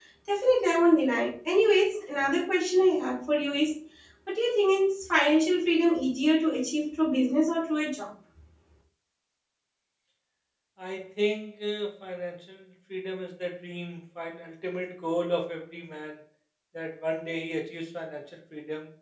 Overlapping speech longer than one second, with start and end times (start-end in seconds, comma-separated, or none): none